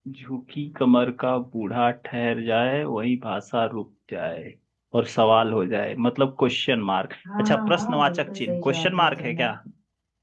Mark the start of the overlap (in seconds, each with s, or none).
7.2 s